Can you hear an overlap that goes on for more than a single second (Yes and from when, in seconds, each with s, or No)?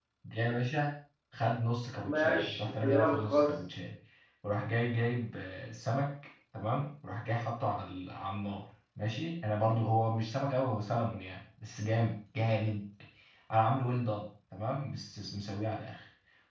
Yes, from 2.1 s